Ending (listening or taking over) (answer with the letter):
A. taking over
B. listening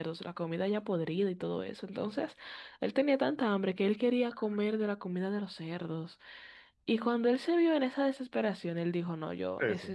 B